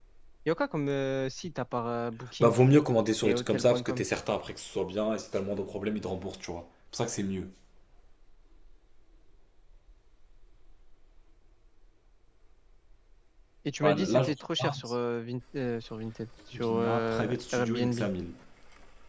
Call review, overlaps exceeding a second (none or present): present